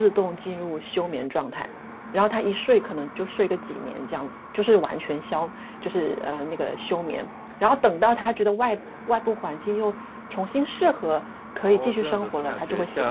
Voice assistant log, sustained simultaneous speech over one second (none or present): present